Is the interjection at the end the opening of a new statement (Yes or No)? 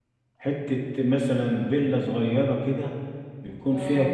No